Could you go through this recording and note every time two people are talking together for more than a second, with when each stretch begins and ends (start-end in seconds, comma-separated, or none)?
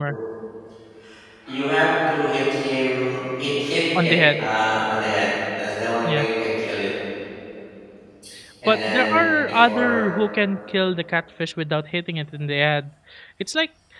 8.7-10.0